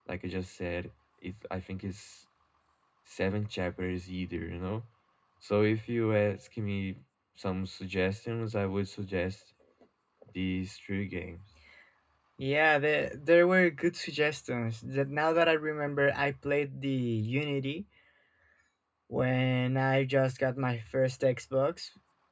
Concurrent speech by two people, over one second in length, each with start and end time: none

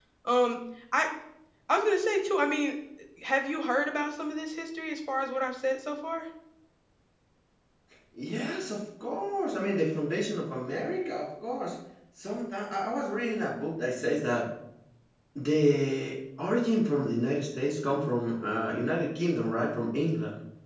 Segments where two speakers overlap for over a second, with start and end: none

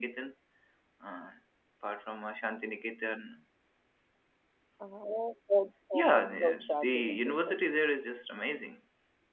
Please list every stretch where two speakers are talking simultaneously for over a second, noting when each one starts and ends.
5.9-7.6

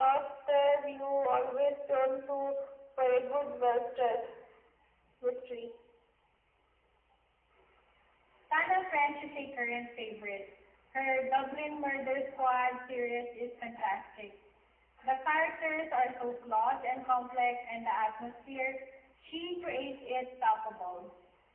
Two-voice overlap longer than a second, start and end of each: none

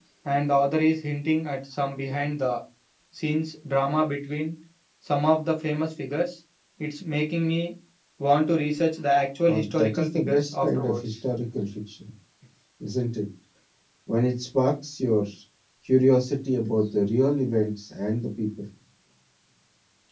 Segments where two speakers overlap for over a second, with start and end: 9.4-11.1

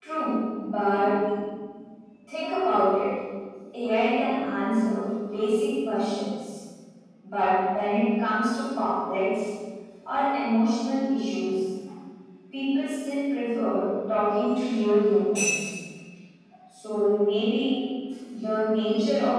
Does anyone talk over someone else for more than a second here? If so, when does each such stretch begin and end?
none

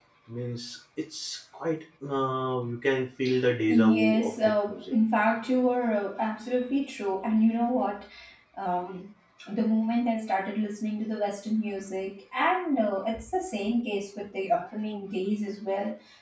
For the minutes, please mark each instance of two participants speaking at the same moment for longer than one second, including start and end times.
3.7-4.9

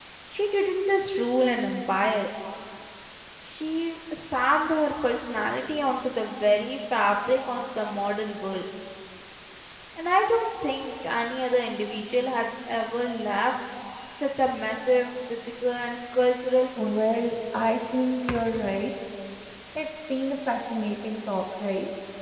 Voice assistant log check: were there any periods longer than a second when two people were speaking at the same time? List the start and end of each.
none

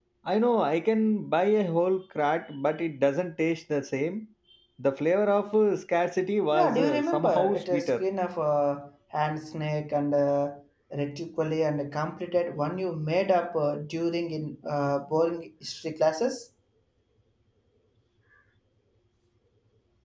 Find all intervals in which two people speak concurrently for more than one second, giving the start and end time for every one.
6.5-8.0

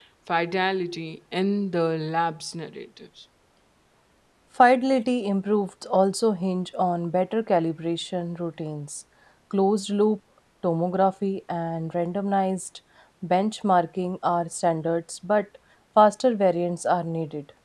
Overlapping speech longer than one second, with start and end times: none

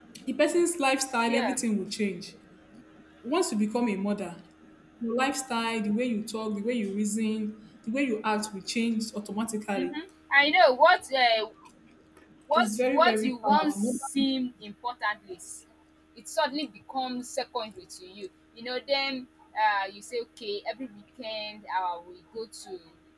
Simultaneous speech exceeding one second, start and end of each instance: 12.6-14.2

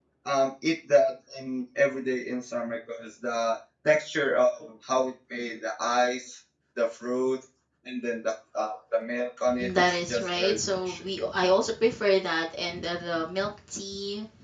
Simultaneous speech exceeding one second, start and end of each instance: 9.7-11.1

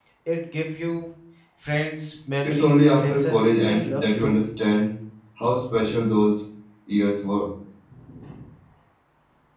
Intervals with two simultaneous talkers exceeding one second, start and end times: 2.4-4.4

